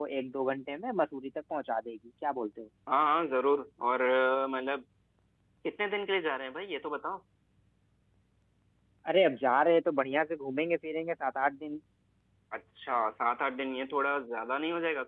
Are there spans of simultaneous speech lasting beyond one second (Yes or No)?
No